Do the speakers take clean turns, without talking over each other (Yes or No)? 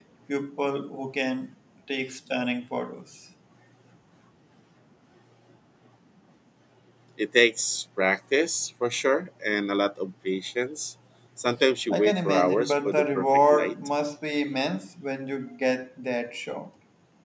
No